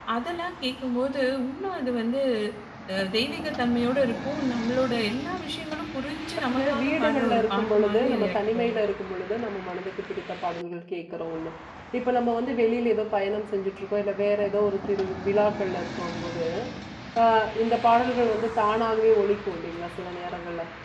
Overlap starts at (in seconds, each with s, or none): 6.5 s